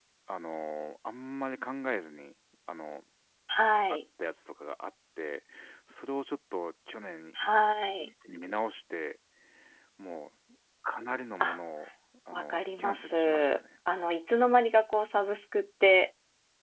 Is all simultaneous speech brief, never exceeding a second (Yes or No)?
No